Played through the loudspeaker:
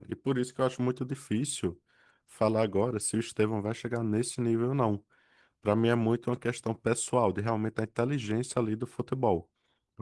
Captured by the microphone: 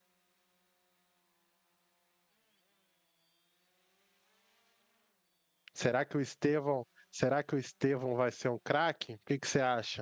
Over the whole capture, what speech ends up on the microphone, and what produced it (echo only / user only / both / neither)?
user only